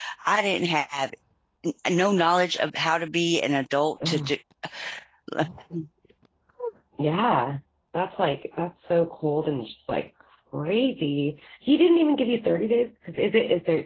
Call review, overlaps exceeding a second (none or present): none